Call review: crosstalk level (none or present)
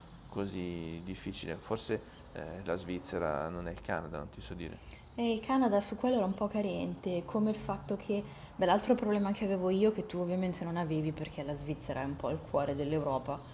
none